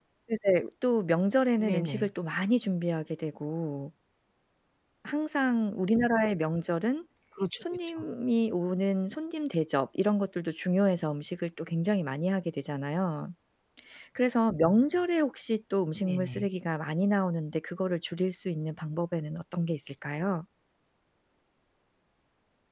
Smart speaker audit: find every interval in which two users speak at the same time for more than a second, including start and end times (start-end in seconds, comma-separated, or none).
none